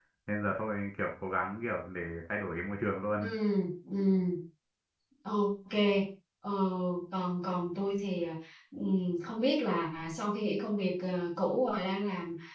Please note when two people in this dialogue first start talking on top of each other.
none

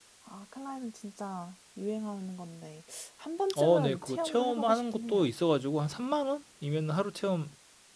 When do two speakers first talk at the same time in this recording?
3.5 s

